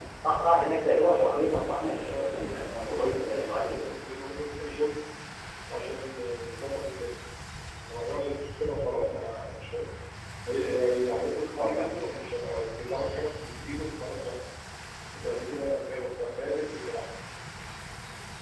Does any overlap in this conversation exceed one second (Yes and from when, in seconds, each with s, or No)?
Yes, from 1.5 s